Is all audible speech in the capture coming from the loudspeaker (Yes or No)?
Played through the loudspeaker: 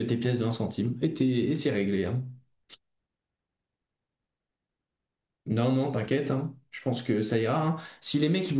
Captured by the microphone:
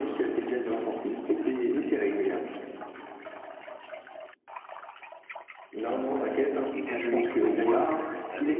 No